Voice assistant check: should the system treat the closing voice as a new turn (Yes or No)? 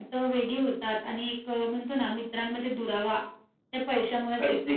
Yes